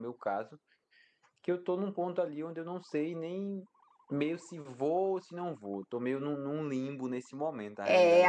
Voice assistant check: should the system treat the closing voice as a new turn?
Yes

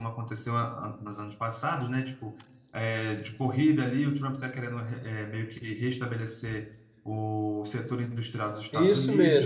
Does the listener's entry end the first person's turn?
Yes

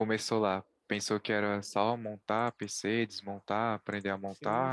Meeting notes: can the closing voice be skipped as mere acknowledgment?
No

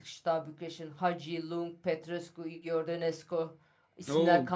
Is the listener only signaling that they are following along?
Yes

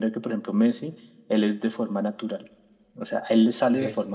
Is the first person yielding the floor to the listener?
No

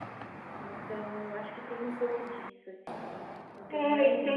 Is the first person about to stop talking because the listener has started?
Yes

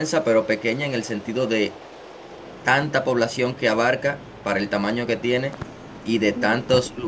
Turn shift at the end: No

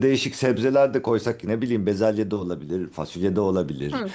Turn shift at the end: Yes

